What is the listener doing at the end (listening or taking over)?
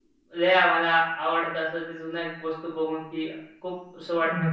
taking over